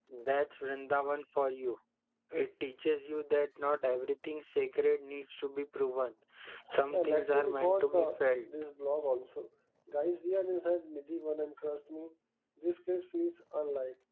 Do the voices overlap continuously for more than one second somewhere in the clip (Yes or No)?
Yes